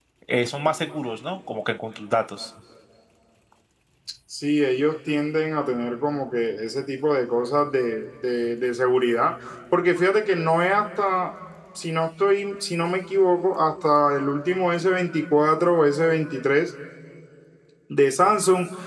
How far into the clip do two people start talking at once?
none

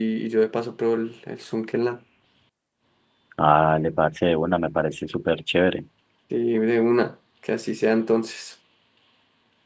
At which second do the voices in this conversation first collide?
none

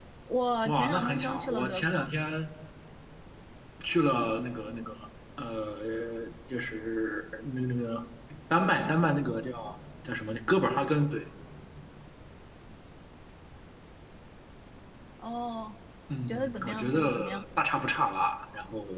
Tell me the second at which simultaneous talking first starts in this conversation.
1 s

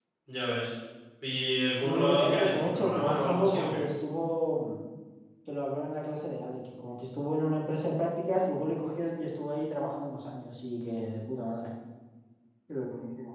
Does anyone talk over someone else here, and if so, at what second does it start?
2 s

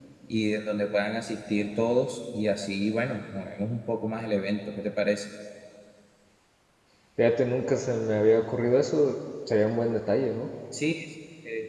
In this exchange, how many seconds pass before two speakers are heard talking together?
none

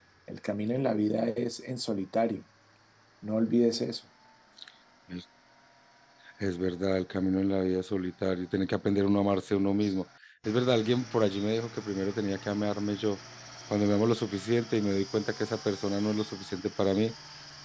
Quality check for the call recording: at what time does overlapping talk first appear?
none

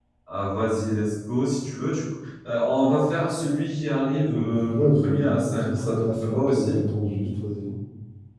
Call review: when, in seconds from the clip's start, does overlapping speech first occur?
4 s

